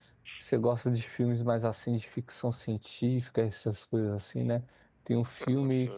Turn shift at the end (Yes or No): No